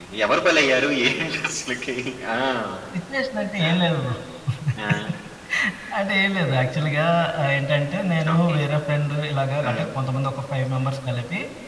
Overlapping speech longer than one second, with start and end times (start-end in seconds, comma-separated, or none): none